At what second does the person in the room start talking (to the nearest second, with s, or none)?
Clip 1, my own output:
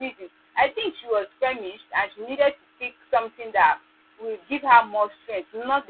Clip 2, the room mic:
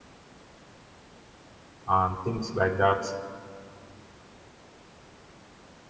2 s